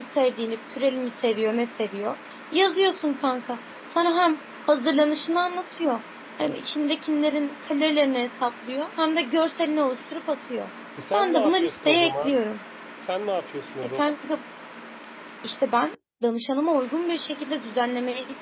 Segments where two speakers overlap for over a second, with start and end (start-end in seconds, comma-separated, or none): 11.1-12.4